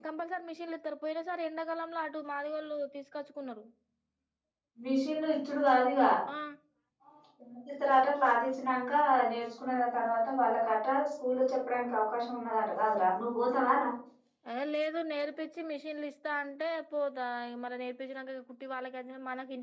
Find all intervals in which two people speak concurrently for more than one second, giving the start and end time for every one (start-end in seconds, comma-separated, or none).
none